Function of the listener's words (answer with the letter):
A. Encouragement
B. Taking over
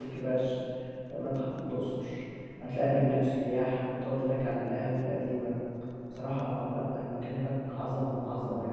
B